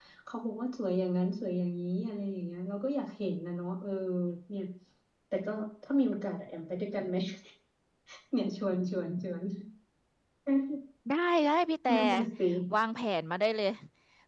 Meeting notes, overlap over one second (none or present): none